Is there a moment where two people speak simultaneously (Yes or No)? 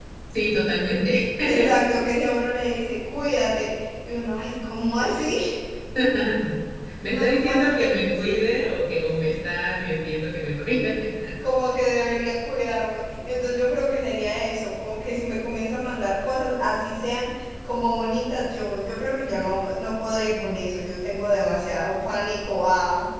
Yes